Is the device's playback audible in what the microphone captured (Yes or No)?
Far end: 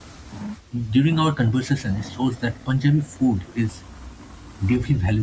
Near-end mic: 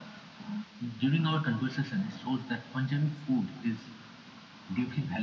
Yes